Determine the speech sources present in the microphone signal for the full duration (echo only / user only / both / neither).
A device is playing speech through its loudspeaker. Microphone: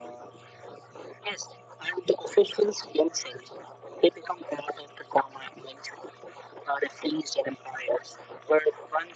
echo only